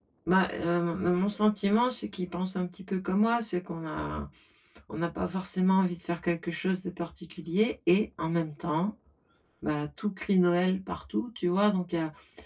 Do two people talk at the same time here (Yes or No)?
No